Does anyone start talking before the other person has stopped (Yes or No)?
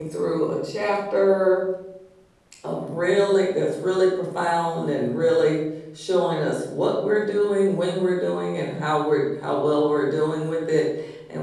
No